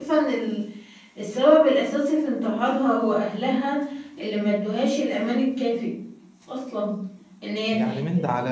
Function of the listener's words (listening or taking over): taking over